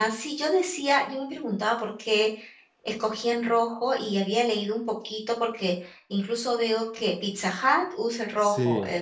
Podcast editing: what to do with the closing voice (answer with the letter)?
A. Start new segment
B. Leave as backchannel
B